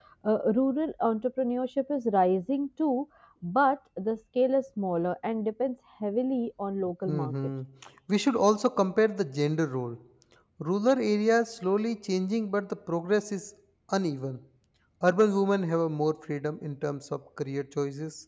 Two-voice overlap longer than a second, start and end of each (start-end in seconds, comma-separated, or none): none